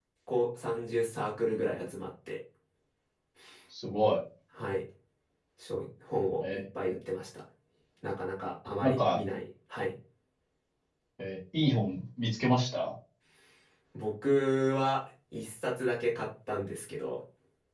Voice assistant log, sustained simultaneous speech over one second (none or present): none